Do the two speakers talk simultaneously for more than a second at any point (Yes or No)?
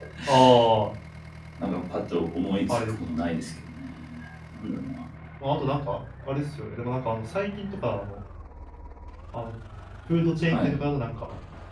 No